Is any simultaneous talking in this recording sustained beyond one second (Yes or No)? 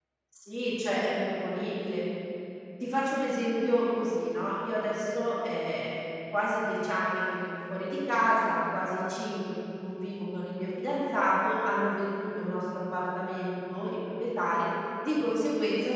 No